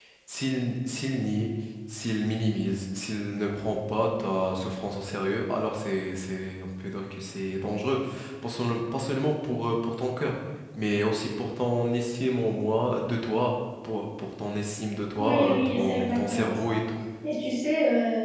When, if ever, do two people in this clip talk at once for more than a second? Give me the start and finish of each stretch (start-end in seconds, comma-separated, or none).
15.2-16.8